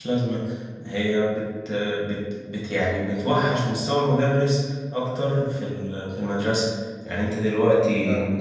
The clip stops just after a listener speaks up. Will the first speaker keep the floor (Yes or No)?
Yes